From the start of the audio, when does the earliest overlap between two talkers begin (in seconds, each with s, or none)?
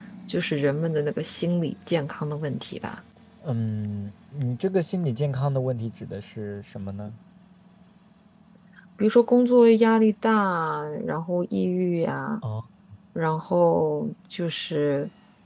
none